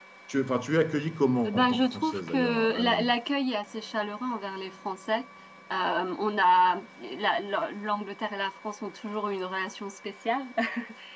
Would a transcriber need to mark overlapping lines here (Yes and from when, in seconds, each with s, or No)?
Yes, from 1.4 s